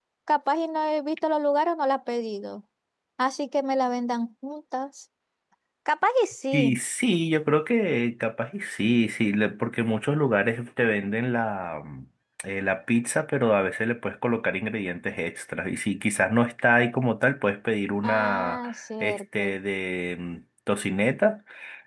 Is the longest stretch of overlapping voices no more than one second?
No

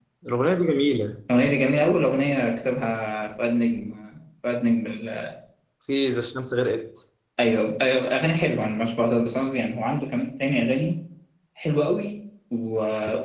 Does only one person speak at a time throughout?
Yes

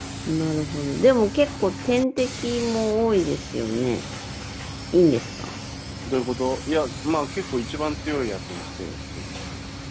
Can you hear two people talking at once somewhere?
No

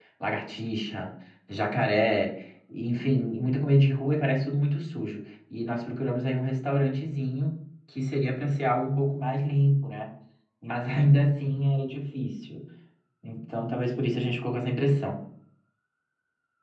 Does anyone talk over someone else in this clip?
No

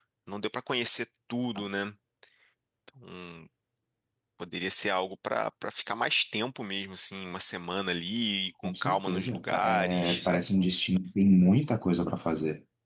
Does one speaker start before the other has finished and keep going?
Yes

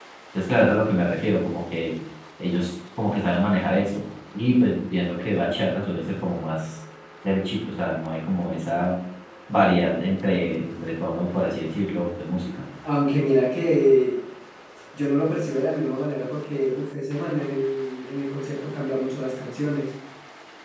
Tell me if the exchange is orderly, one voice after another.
Yes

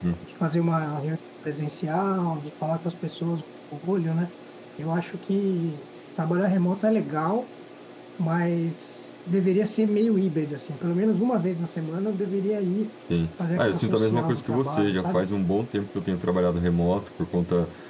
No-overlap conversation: No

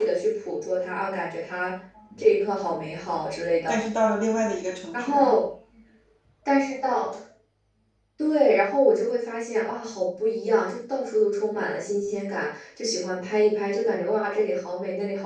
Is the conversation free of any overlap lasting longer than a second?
Yes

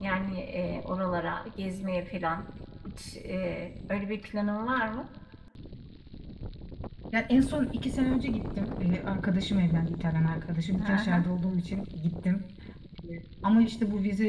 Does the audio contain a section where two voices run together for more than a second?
No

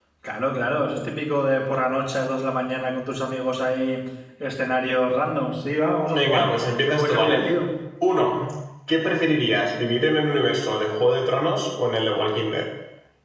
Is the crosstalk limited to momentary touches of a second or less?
No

